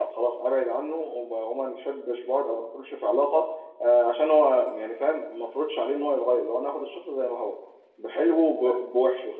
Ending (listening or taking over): listening